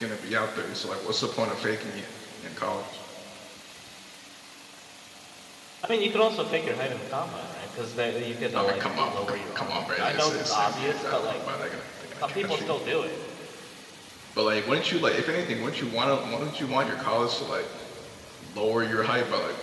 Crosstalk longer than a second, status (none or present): present